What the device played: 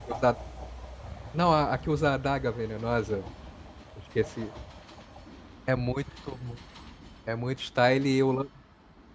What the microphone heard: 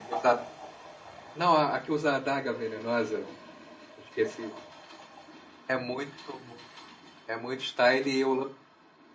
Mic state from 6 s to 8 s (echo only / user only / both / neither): echo only